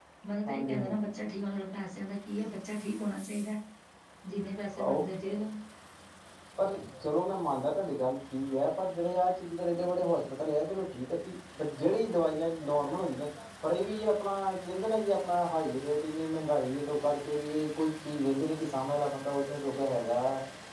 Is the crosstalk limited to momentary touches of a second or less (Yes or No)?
Yes